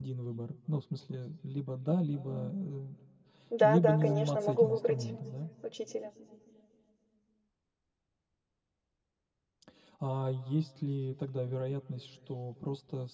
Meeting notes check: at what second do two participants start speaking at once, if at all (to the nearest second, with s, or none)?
4 s